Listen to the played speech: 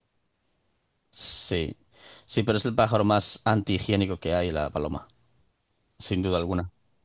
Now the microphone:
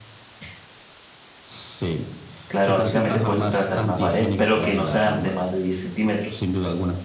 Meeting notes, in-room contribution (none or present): present